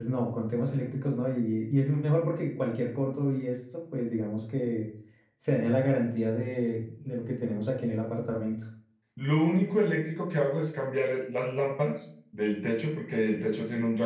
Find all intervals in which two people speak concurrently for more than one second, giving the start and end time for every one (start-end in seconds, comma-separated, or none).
none